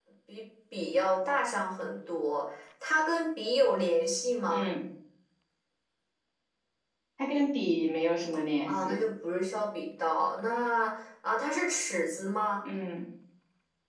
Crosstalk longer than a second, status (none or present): none